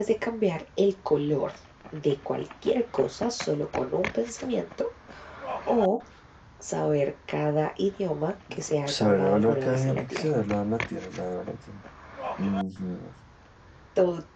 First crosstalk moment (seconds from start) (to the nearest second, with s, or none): 9 s